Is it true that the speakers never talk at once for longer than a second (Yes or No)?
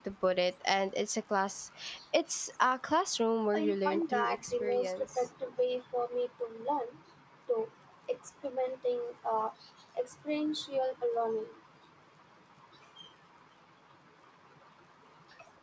No